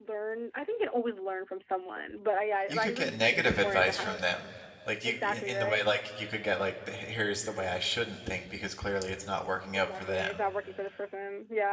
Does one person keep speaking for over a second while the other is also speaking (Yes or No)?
Yes